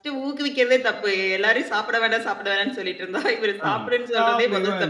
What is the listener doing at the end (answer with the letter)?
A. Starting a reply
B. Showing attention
A